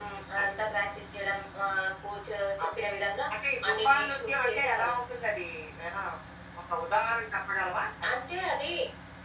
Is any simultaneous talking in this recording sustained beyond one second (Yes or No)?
Yes